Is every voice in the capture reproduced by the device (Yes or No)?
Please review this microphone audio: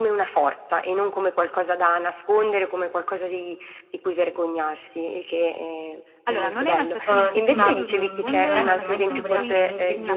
No